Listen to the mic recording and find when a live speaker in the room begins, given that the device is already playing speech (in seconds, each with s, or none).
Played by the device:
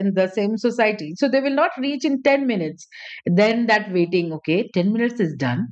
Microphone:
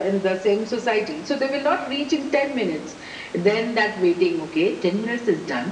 none